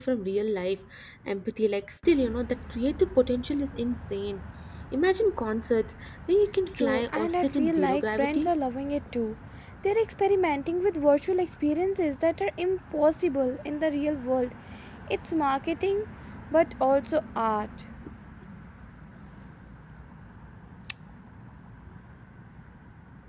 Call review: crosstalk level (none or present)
present